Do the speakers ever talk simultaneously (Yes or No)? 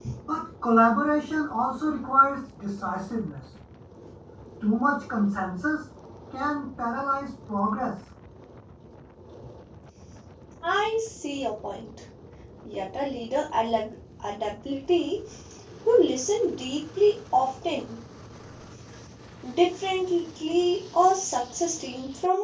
No